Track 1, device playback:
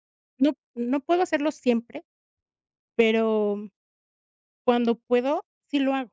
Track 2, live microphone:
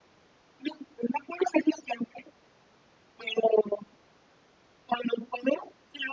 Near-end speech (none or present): none